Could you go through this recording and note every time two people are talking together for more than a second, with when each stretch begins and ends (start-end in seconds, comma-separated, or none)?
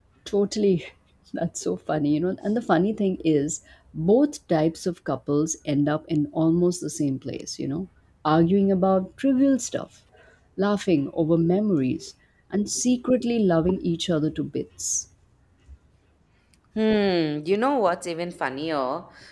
none